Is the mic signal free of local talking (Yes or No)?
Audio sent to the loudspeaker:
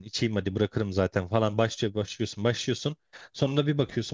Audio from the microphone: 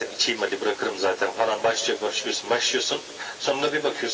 Yes